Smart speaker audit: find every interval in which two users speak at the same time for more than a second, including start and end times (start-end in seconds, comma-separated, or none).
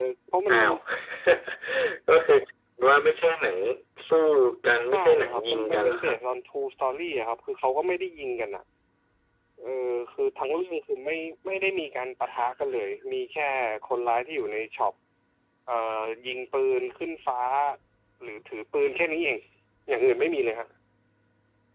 4.9-6.2